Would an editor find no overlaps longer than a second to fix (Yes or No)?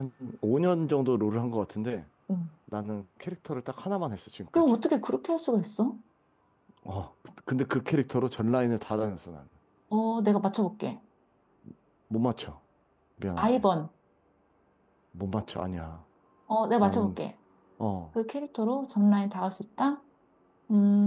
Yes